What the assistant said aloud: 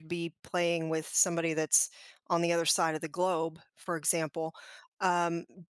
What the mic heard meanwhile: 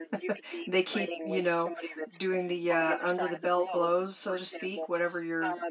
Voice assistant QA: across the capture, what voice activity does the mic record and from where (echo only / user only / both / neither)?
both